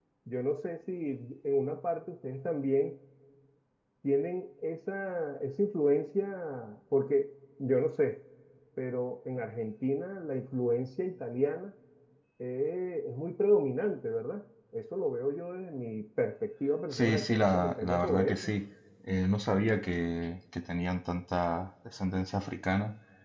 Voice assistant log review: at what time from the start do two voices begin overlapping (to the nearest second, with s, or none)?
17 s